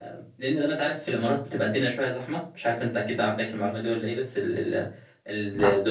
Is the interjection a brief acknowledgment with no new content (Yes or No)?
Yes